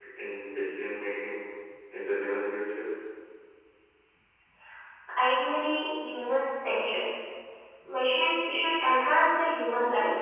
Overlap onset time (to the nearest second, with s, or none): none